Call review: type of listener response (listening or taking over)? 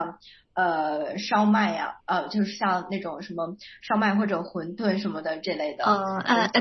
taking over